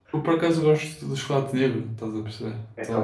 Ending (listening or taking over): taking over